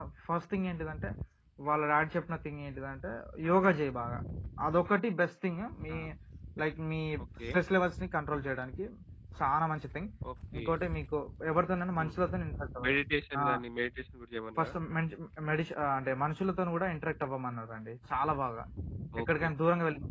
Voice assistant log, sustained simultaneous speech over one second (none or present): none